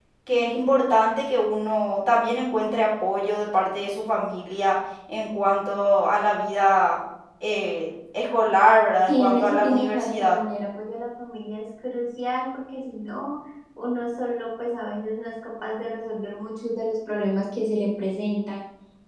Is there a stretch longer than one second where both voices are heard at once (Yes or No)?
Yes